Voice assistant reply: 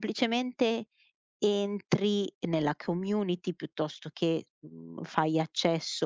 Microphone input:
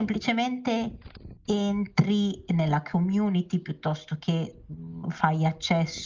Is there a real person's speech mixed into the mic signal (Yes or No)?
No